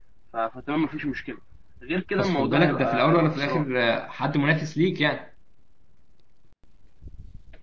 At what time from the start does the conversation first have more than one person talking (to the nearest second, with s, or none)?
2 s